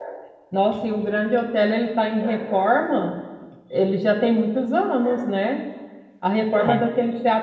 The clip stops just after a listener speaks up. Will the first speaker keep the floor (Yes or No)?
Yes